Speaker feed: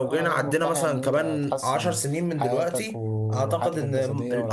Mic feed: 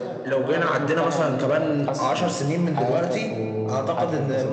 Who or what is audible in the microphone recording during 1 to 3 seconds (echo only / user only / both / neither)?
echo only